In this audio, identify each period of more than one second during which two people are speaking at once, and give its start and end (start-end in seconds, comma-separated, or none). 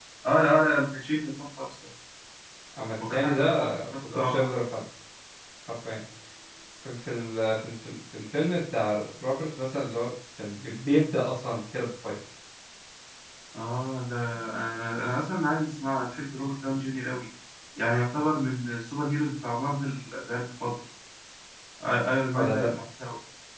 3.1-4.4